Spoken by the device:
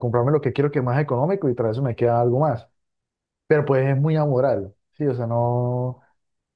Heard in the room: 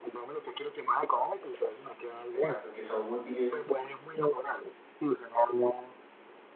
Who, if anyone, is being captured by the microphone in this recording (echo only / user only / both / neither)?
both